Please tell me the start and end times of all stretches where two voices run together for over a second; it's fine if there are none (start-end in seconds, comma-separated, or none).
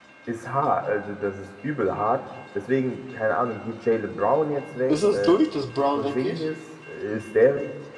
none